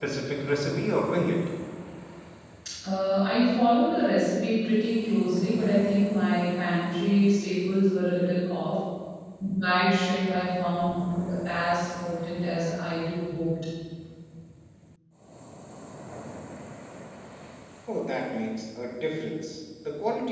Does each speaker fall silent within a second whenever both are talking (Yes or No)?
Yes